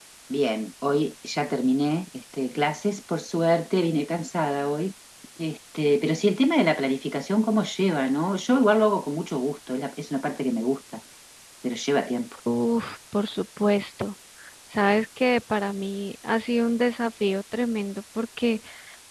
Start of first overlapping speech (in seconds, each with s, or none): none